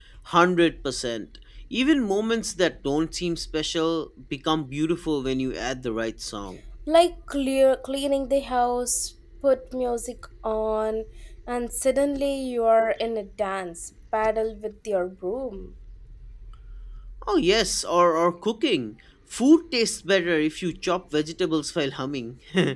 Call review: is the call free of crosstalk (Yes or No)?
Yes